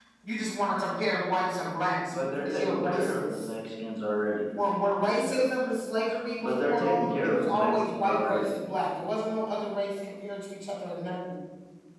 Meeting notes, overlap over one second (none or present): present